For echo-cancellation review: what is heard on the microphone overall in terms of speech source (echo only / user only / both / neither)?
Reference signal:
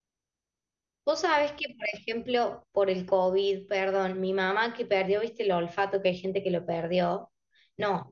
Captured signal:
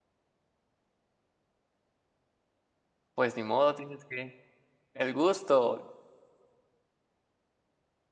user only